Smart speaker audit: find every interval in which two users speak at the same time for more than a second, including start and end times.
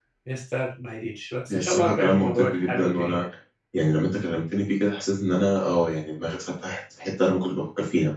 1.5-3.2

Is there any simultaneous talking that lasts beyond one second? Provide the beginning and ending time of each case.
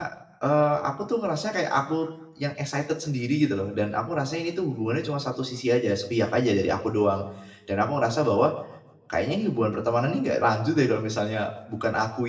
none

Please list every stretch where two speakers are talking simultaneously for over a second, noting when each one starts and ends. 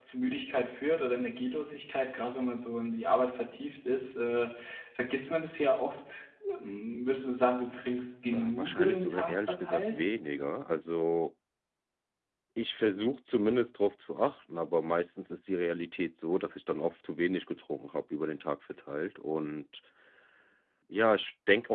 8.3-10.0

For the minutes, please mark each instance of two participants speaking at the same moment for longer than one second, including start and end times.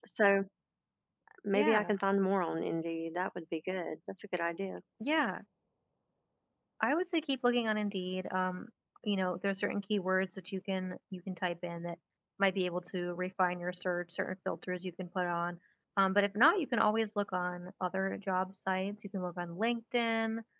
none

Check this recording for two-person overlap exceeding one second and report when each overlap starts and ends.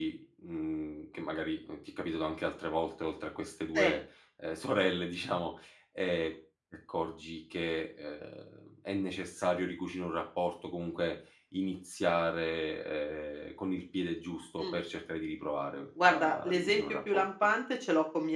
16.0-17.2

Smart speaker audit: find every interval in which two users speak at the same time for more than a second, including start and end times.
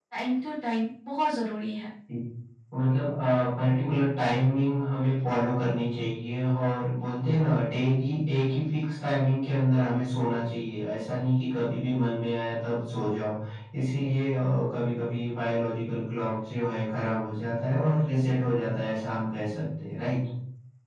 none

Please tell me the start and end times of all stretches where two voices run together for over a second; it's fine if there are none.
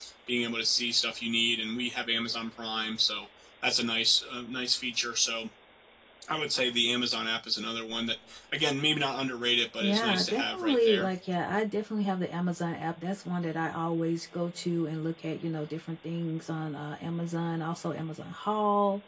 9.8-11.1

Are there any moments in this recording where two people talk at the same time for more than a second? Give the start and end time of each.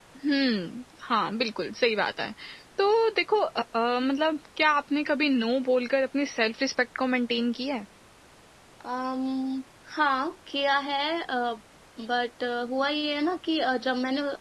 none

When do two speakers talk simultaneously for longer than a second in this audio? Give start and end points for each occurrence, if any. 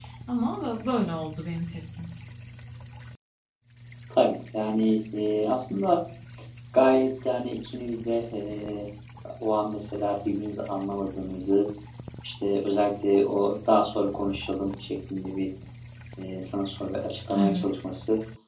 none

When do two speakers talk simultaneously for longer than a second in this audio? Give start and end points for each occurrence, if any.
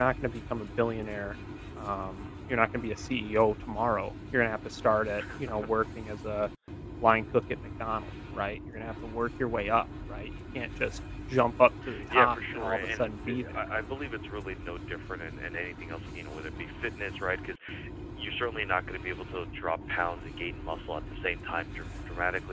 12.1-13.4

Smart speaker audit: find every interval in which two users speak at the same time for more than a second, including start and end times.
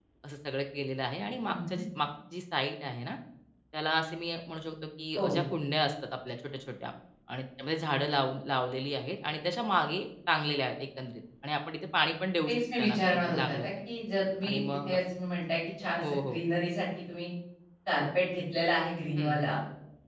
12.5-13.7

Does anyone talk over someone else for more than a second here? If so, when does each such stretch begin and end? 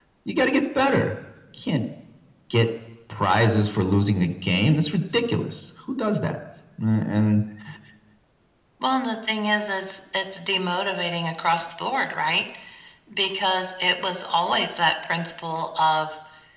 none

